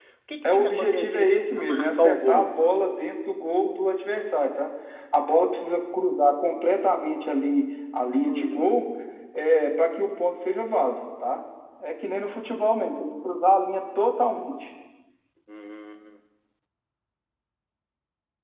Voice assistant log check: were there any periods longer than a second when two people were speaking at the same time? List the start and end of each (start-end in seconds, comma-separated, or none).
0.5-2.5